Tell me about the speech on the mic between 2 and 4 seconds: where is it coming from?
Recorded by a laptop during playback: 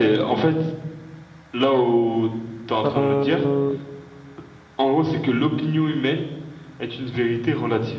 both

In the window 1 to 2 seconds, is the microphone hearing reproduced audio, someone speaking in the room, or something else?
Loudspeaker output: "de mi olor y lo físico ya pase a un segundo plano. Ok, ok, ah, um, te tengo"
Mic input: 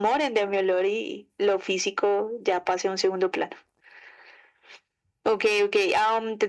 echo only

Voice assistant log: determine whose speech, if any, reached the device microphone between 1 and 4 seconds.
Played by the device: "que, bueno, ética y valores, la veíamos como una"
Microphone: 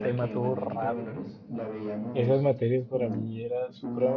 both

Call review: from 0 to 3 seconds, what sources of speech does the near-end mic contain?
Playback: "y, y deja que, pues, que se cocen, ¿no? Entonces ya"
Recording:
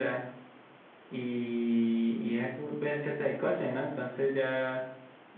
echo only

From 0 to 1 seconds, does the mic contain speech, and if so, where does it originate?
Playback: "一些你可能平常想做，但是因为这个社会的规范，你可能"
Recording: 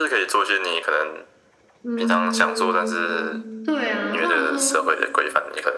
echo only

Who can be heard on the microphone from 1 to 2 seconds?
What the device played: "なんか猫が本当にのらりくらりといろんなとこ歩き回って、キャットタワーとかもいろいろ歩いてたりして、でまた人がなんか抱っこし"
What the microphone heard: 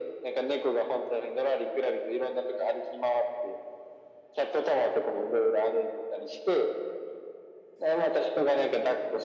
echo only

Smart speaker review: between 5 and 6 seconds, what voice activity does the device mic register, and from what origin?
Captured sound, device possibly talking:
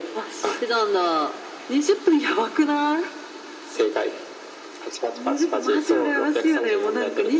echo only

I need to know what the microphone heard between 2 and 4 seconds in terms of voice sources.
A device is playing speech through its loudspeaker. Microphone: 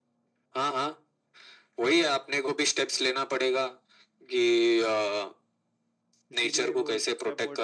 echo only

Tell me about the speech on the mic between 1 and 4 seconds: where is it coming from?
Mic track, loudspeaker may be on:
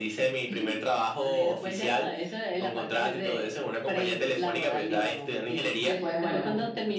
echo only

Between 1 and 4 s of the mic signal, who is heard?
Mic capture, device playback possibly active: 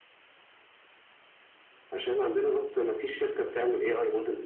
echo only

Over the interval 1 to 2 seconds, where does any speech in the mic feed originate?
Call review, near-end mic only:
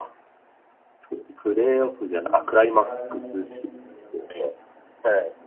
echo only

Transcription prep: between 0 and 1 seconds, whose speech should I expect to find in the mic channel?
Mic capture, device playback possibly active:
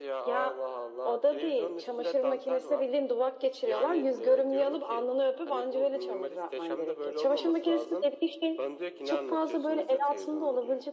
echo only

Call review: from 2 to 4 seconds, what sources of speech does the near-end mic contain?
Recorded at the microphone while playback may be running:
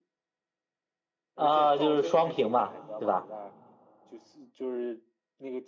both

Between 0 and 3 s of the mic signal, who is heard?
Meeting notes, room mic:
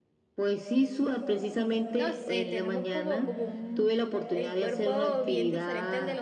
both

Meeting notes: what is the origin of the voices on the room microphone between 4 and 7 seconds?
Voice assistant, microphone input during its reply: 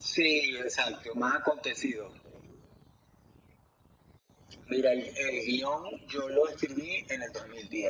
echo only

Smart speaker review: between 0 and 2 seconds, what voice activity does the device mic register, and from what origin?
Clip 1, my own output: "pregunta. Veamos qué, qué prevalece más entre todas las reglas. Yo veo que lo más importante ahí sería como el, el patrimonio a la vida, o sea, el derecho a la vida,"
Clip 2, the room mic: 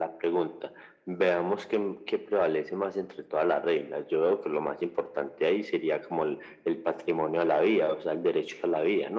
echo only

